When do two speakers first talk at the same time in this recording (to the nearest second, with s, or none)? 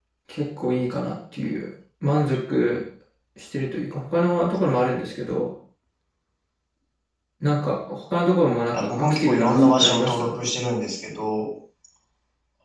9 s